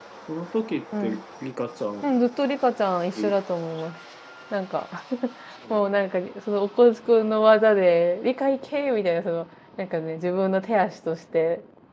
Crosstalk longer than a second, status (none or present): none